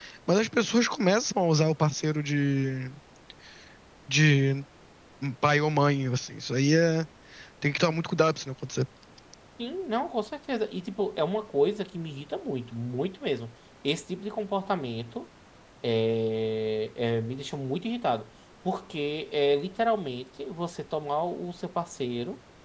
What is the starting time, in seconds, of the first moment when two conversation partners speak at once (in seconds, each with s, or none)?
none